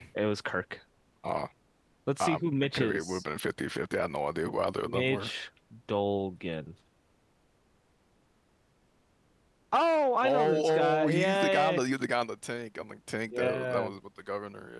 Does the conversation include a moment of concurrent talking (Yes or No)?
Yes